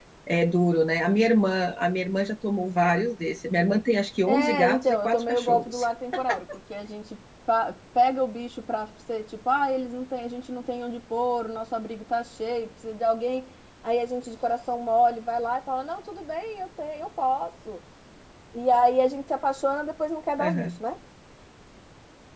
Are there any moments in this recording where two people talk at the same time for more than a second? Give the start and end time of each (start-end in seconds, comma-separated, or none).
4.3-5.8